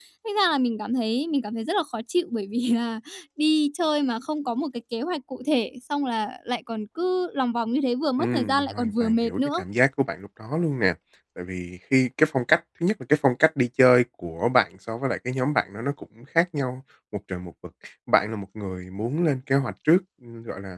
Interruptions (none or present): present